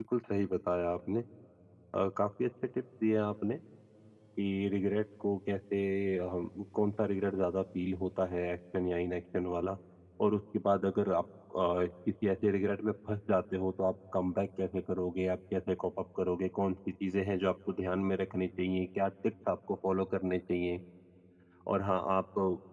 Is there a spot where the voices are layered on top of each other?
No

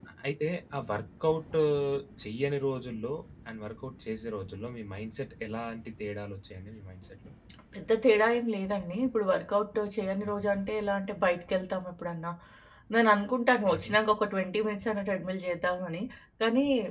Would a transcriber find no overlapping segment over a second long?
Yes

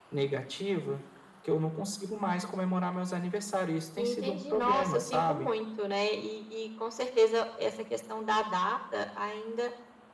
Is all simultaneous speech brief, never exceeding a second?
No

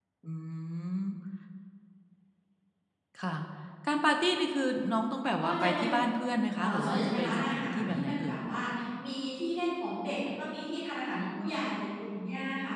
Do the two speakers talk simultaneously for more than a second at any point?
Yes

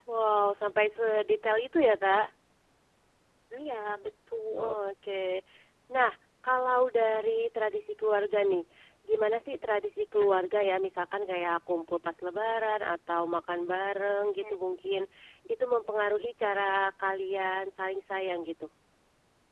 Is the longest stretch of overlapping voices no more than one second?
Yes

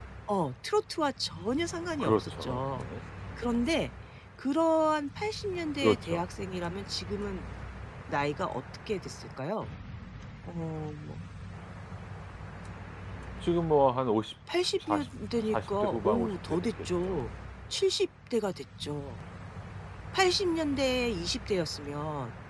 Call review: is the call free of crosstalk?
No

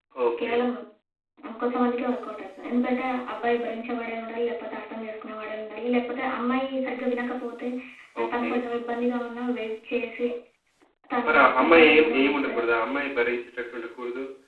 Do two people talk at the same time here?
Yes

